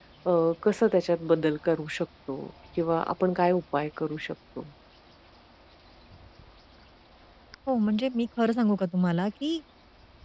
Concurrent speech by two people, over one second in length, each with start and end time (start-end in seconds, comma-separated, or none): none